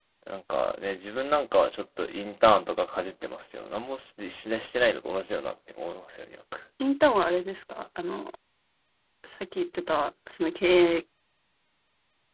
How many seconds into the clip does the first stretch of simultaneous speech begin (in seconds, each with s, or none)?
none